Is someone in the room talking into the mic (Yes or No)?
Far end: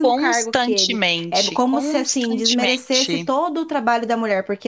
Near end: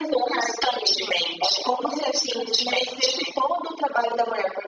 No